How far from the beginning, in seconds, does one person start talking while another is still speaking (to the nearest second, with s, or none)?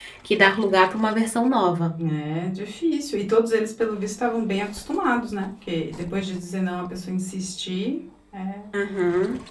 none